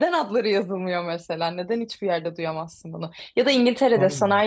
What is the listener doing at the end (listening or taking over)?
listening